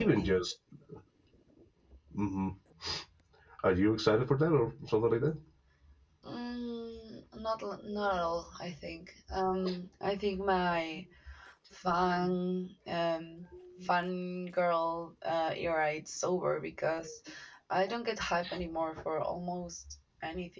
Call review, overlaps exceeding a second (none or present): none